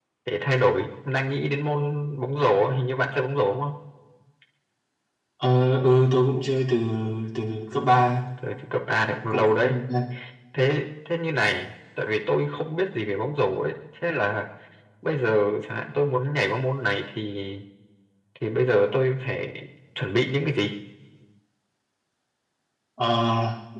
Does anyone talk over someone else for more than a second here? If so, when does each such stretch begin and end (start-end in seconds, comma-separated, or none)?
none